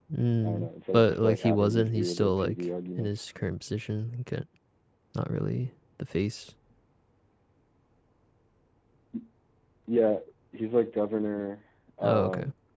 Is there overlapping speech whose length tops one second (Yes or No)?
Yes